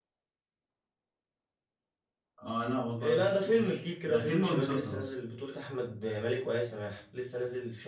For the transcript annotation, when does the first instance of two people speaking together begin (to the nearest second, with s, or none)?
3 s